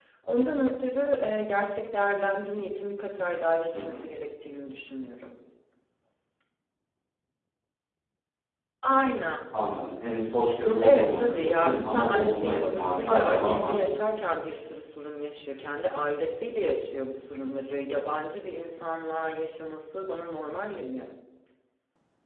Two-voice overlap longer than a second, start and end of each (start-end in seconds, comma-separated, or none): 10.8-13.8